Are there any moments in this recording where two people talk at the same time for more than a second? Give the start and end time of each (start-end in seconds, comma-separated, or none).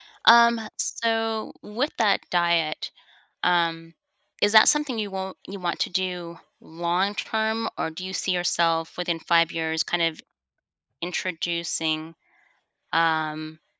none